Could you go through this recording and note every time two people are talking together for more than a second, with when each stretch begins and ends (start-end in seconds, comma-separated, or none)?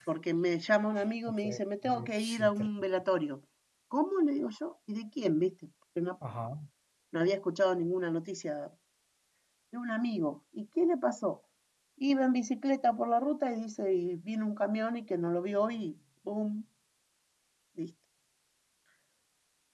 1.4-2.7